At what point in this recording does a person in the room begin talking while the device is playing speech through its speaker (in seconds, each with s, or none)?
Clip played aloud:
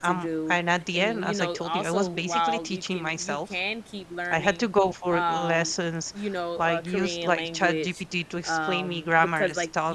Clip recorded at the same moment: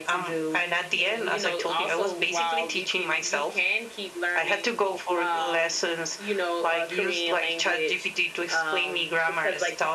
none